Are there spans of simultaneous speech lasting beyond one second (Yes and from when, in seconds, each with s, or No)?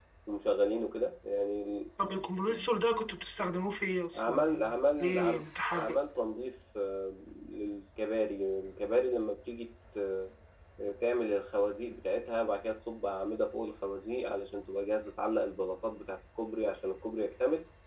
Yes, from 4.1 s